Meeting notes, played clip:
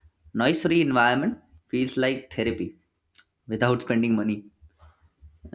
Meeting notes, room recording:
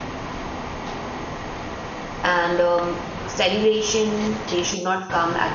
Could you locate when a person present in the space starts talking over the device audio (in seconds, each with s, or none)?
2.2 s